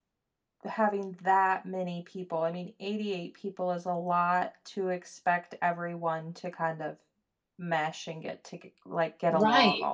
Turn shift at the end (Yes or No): Yes